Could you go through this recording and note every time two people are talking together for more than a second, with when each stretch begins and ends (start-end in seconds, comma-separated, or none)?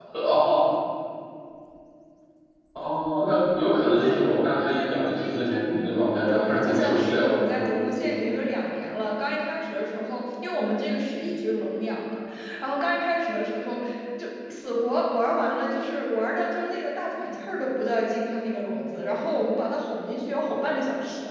4.7-8.3